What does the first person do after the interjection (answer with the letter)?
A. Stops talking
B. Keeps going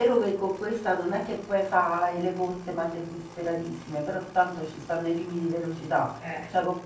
B